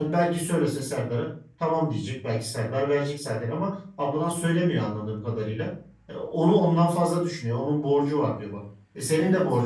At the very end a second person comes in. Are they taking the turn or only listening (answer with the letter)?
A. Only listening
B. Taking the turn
A